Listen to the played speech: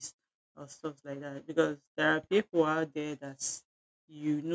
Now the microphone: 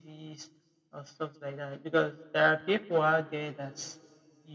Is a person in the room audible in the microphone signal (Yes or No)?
No